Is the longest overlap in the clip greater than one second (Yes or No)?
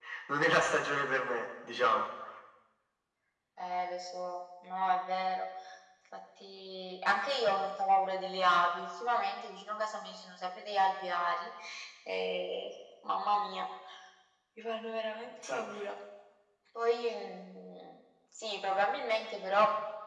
No